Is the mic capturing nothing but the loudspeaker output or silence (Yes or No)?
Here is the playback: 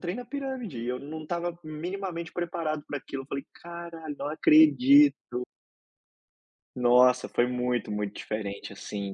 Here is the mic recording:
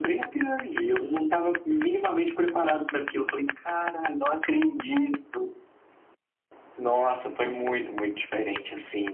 Yes